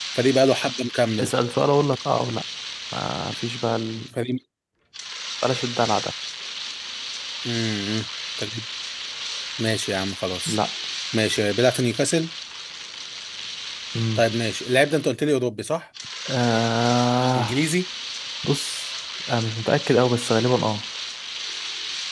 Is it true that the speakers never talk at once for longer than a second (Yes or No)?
Yes